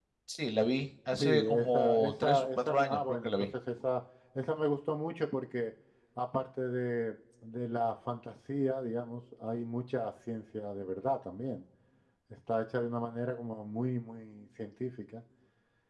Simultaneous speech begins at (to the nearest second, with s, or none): 1 s